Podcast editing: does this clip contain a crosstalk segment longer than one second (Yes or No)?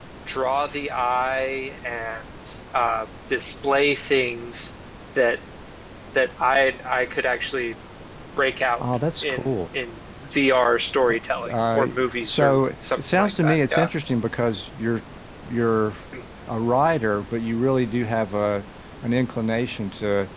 Yes